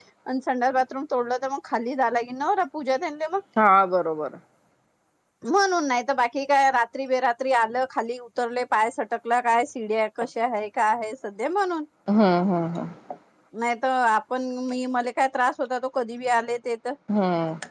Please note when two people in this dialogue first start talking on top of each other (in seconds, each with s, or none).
none